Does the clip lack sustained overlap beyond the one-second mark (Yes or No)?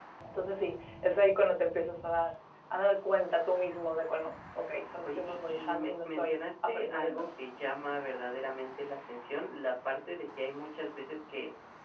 No